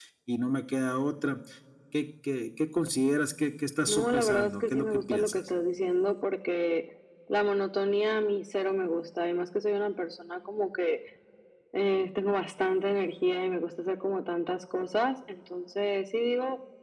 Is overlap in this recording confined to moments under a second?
No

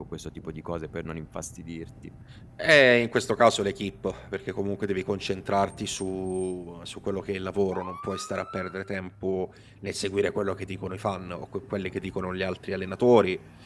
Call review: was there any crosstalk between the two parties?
No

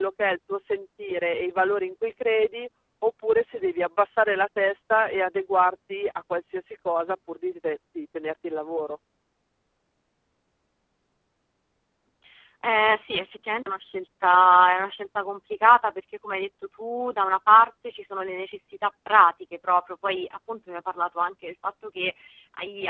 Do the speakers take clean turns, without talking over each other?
Yes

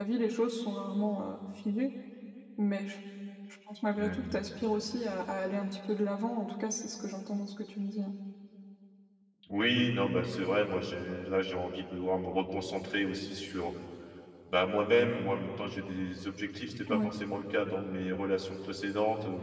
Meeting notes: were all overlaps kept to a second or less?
Yes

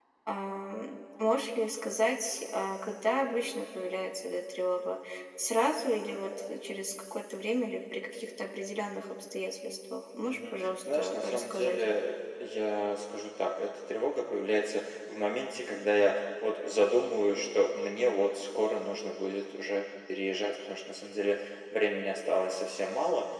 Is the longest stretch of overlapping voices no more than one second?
No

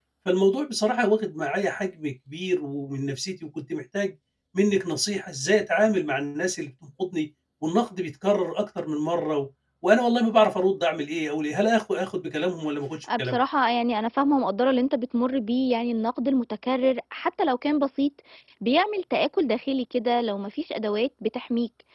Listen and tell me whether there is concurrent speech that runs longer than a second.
No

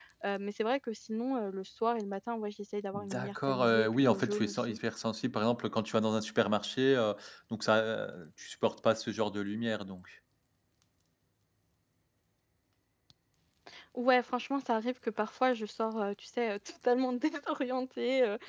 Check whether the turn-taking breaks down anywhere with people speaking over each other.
Yes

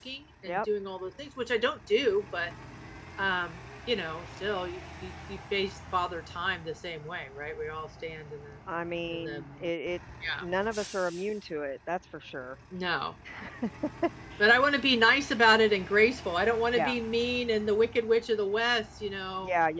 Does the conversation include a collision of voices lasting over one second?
No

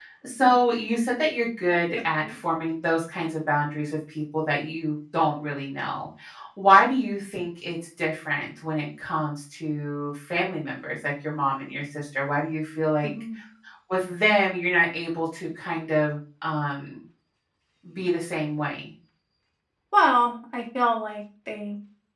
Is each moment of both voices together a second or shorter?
Yes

